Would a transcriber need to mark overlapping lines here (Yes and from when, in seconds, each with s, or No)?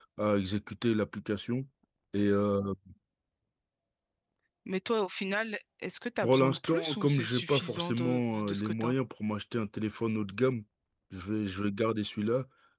Yes, from 6.2 s